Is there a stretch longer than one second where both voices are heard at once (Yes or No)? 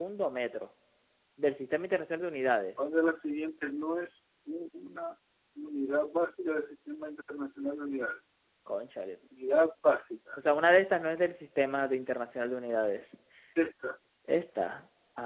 No